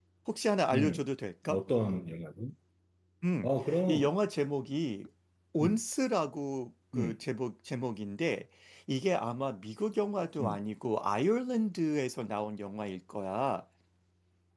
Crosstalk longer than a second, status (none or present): none